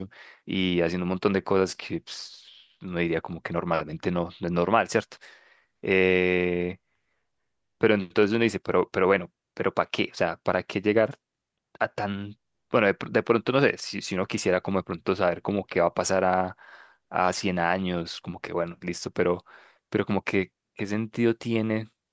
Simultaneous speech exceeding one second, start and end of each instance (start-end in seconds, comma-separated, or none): none